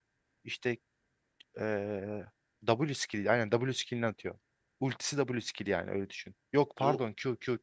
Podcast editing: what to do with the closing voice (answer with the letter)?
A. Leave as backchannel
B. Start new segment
A